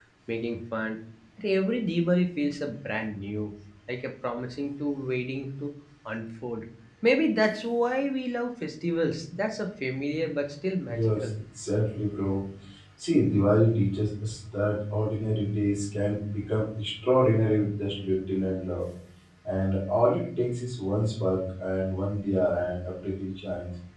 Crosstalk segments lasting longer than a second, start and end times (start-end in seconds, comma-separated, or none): none